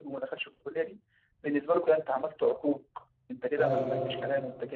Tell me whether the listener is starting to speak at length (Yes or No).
No